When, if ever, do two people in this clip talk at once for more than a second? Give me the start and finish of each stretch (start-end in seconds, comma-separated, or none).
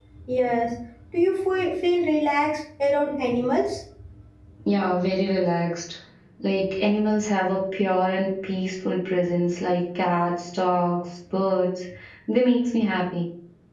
none